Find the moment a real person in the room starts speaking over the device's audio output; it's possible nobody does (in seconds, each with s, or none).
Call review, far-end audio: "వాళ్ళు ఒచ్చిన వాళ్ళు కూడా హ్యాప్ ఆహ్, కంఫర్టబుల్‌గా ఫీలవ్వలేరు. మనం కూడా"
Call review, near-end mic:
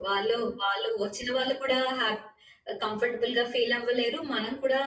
none